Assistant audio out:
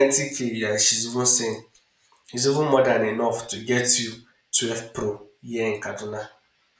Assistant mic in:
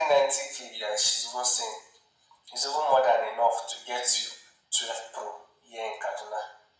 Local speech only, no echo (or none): none